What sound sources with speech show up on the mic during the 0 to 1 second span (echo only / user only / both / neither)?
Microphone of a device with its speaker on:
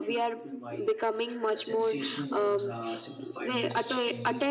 both